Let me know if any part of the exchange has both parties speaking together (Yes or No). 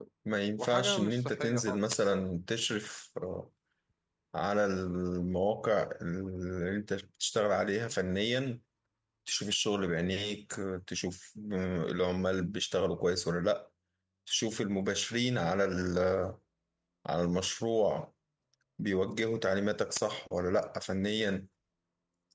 Yes